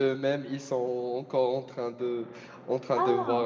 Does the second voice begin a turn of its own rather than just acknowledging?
No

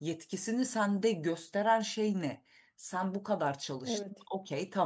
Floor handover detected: No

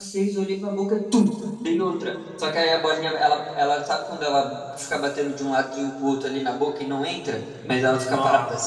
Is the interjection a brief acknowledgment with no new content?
Yes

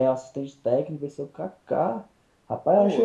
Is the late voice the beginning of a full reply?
No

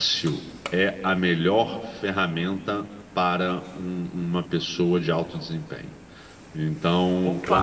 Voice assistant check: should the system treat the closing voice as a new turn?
No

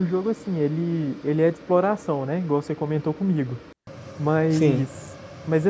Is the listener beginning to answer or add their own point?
No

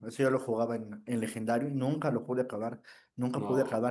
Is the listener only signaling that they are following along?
Yes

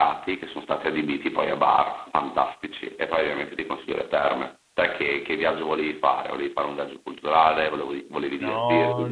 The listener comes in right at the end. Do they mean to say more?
Yes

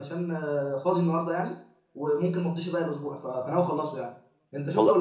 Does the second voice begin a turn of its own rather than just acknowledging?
Yes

